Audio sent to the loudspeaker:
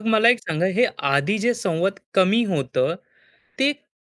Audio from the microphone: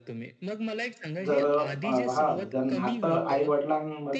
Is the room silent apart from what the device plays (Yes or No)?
No